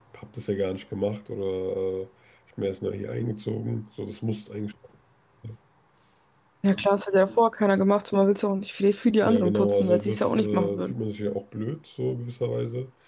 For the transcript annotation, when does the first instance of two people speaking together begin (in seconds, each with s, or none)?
9.2 s